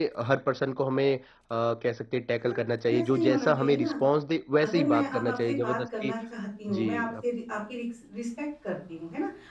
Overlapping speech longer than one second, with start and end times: 2.4-3.9, 4.6-6.1

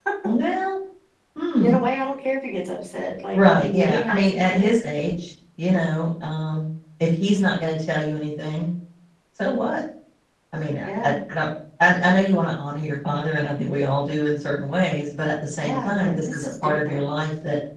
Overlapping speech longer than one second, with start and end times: 3.3-4.7, 15.6-17.0

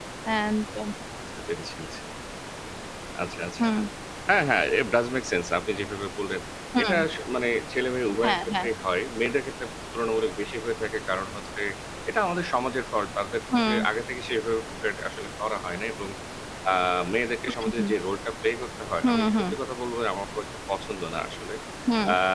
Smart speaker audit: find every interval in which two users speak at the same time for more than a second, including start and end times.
none

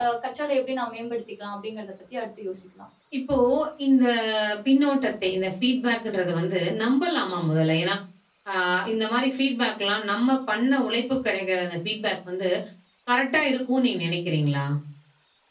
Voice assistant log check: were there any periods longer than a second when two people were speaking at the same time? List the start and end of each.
none

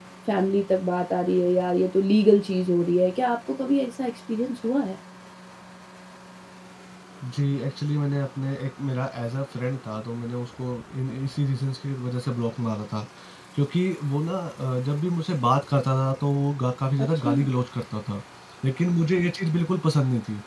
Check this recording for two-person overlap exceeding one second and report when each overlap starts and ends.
none

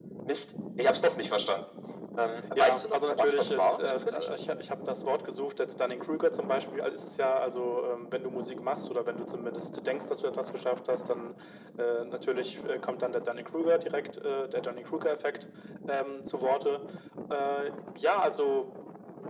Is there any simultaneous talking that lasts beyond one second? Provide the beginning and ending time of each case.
2.6-4.3

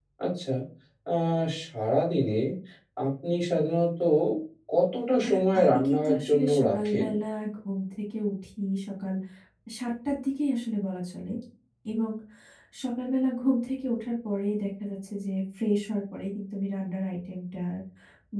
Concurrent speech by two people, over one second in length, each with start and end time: 5.2-7.1

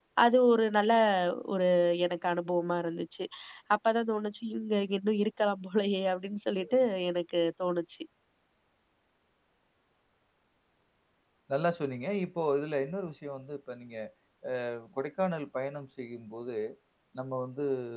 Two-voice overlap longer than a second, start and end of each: none

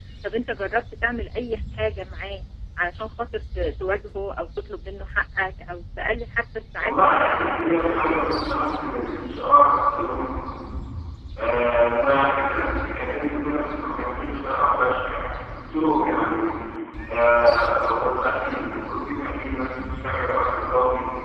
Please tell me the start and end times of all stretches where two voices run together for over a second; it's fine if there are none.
6.8-8.3

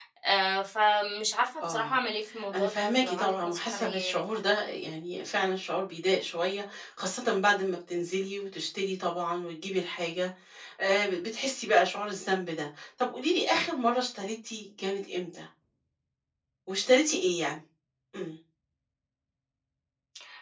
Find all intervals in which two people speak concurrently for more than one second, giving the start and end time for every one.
2.5-4.2

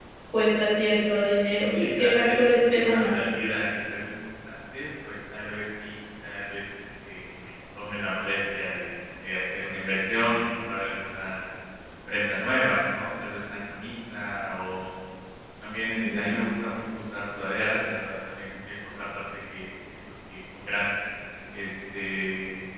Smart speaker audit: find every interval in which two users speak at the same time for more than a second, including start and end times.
1.6-3.1

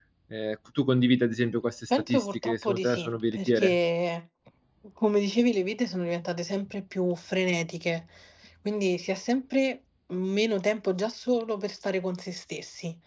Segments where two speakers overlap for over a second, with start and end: 2.1-3.8

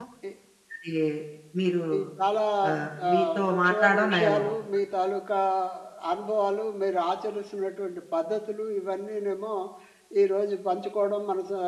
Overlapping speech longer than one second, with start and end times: 3.1-4.4

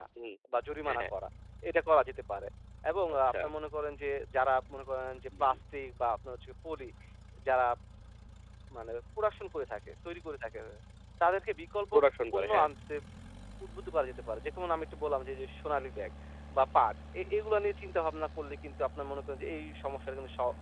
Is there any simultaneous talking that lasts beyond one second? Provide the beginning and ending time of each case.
none

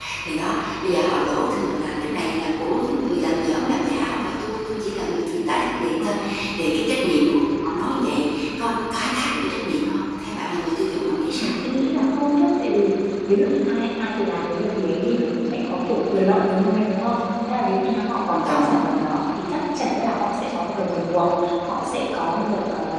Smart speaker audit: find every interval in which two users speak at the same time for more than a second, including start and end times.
none

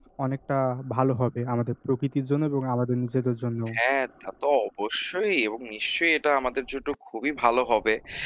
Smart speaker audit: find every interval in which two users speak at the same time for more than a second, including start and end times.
none

